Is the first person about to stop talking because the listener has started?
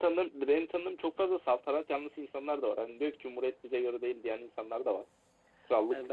Yes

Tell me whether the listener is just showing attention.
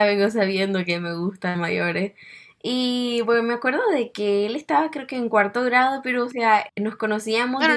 No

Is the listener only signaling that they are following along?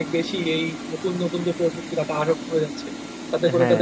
Yes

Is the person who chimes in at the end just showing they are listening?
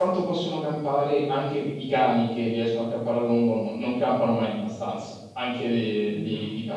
Yes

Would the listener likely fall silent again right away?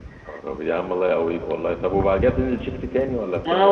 No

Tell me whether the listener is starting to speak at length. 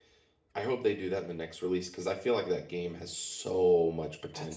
Yes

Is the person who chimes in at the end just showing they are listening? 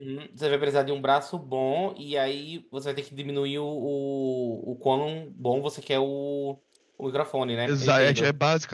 No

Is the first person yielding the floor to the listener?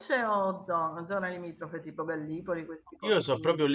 Yes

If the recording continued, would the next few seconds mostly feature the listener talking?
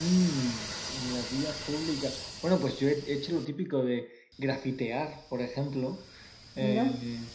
No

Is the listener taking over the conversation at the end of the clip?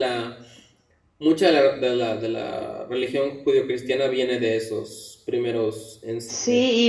Yes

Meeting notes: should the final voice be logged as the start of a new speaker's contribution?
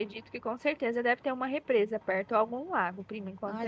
Yes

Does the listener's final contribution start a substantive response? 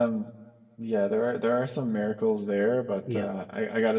No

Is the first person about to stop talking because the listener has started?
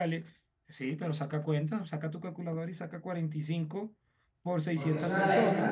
Yes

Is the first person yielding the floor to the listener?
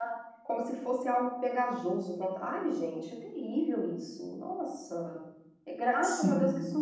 No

